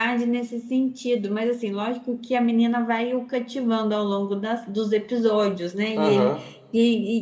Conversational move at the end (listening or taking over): listening